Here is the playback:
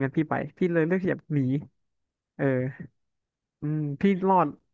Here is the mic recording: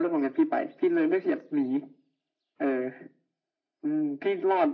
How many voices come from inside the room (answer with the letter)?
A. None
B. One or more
A